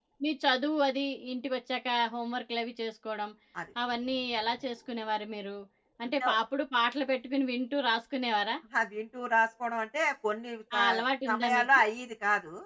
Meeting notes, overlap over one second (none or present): none